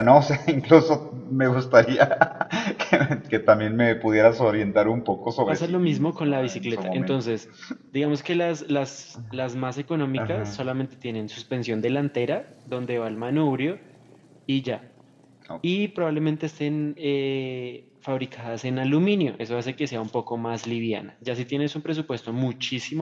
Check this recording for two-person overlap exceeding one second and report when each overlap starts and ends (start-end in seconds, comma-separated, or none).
5.5-7.2